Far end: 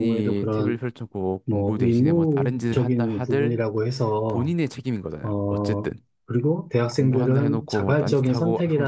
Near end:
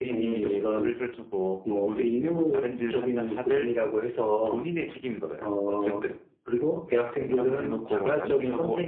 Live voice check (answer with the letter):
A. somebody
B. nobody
B